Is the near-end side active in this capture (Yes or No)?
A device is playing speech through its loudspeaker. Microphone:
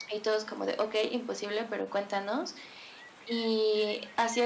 No